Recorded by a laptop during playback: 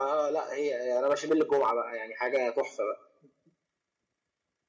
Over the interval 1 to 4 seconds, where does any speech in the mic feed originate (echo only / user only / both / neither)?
echo only